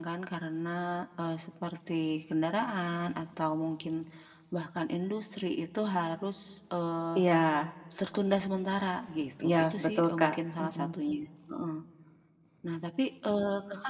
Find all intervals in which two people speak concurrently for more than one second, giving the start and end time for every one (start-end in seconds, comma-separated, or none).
9.4-10.9